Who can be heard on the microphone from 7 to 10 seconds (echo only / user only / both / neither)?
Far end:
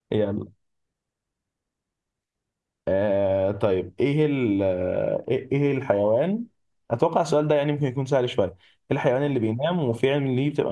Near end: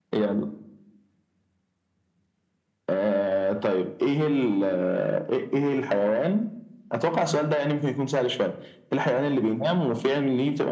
echo only